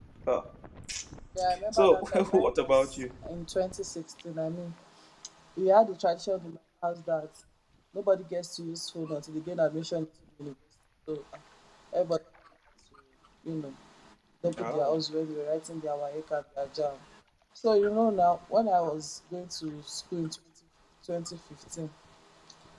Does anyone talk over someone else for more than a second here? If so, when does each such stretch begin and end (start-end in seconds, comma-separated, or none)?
1.7-3.0